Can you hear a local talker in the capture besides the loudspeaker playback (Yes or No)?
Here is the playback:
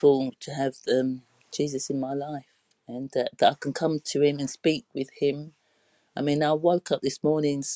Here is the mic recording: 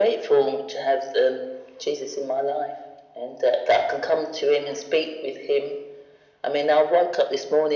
No